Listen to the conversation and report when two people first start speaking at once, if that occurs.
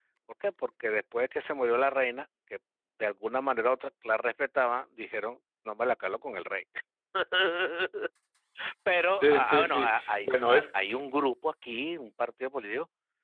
9.2 s

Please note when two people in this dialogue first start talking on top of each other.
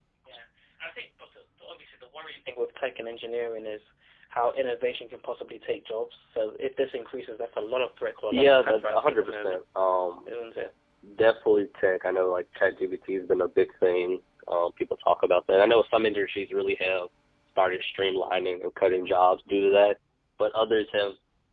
8.3 s

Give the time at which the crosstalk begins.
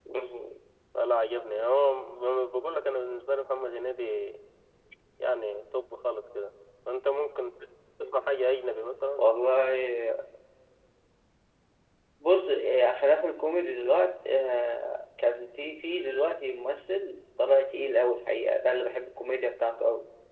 none

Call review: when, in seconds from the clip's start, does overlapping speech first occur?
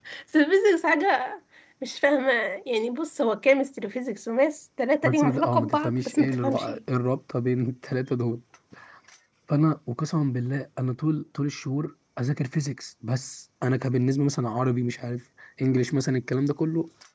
5.0 s

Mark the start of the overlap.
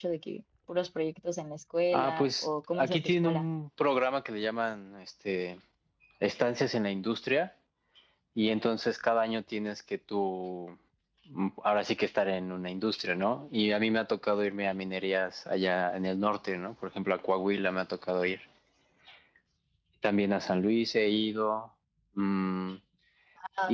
1.9 s

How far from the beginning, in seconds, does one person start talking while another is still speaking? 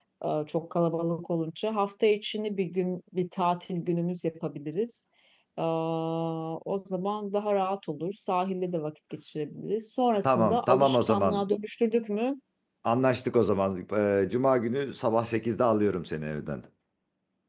10.2 s

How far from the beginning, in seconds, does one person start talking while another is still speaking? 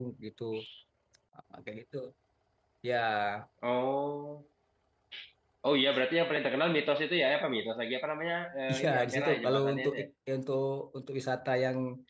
8.7 s

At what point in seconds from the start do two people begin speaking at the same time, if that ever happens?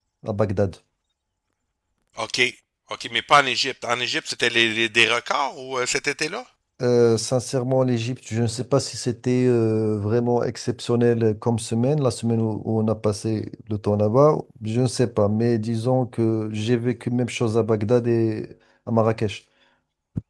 none

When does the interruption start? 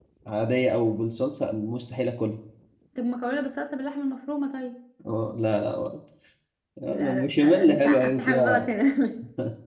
6.9 s

